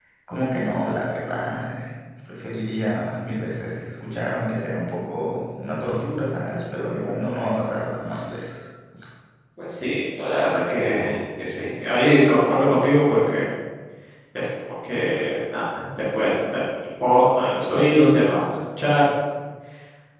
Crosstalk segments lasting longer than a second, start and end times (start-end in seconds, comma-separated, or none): none